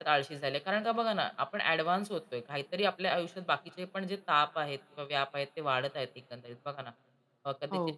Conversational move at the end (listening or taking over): listening